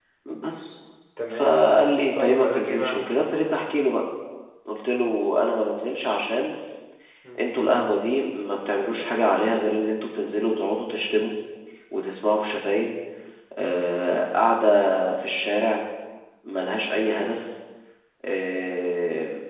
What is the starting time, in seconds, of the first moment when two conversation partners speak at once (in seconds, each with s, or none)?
1.3 s